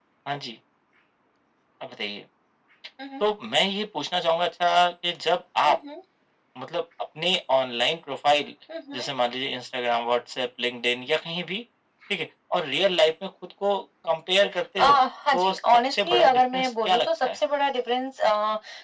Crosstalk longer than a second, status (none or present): present